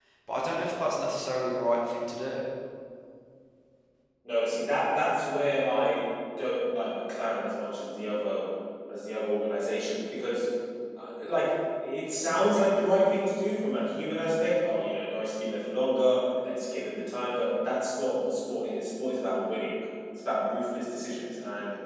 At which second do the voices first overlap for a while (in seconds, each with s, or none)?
none